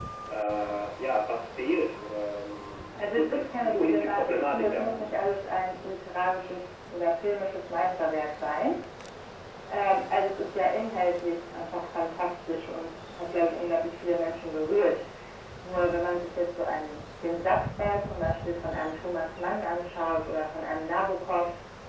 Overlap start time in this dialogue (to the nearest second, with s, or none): 3 s